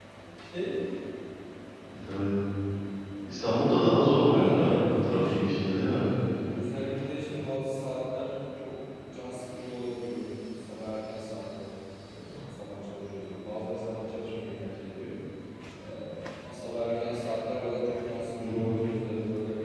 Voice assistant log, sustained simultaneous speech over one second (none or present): present